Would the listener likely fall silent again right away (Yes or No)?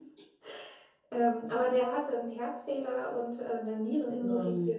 Yes